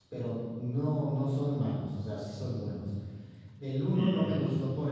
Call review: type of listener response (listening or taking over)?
listening